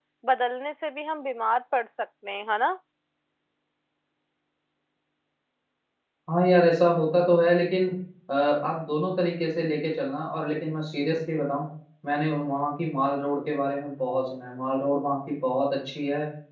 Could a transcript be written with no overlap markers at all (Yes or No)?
Yes